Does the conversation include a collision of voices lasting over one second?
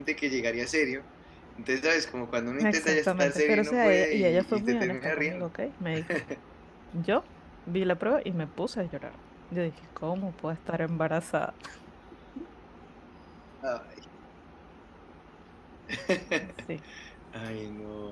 Yes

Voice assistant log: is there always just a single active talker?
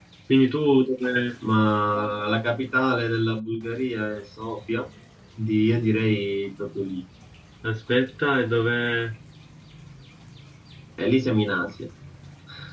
Yes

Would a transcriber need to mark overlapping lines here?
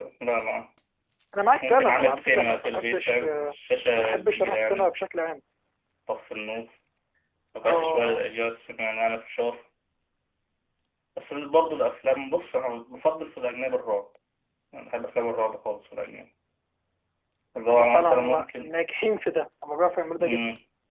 Yes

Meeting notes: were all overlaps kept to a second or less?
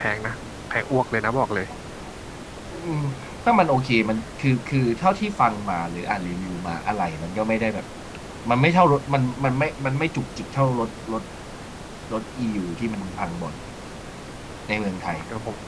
Yes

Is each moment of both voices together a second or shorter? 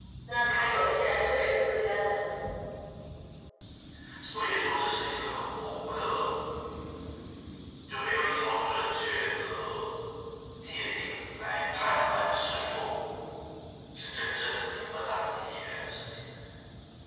Yes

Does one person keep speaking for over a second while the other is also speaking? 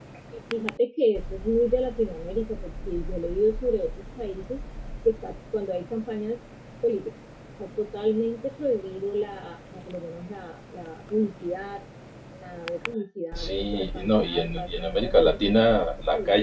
Yes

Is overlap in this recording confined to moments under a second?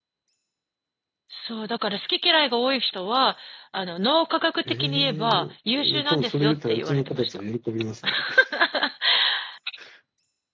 No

